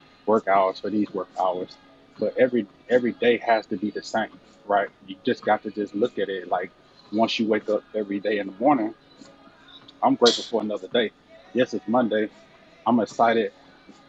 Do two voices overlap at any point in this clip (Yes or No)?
No